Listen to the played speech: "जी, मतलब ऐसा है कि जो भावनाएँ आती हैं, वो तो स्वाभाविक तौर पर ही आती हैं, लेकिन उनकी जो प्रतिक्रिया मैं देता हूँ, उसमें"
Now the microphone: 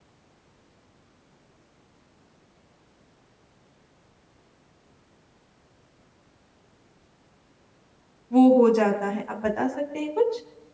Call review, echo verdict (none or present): none